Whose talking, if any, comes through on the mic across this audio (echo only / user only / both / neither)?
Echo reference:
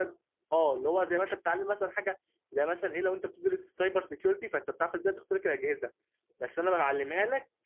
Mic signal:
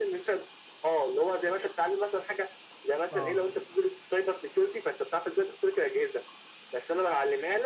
both